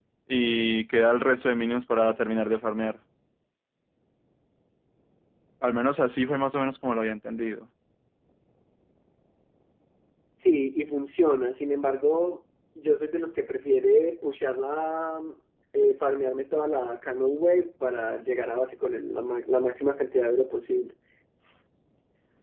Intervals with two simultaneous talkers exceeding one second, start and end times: none

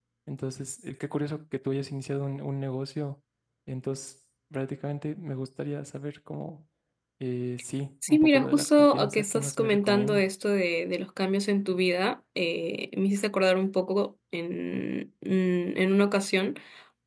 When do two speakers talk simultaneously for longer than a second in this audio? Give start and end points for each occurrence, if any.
8.1-10.3

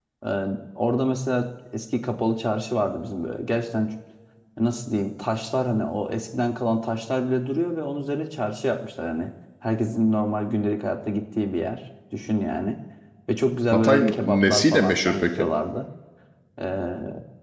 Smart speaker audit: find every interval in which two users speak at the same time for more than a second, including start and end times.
13.7-15.5

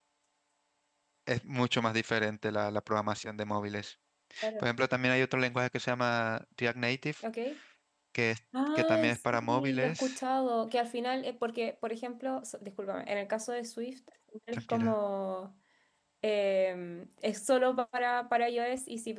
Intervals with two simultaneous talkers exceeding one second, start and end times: 8.8-10.2

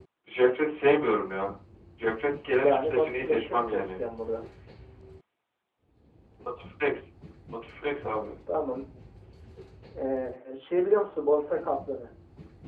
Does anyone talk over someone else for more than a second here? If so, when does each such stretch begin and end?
2.6-4.0

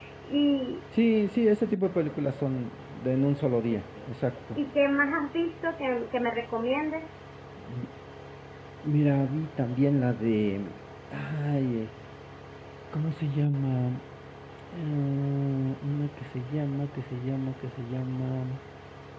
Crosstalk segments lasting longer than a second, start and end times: none

